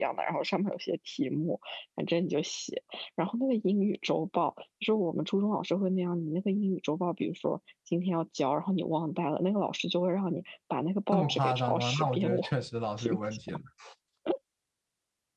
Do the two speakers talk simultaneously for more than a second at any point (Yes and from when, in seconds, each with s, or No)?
Yes, from 11.1 s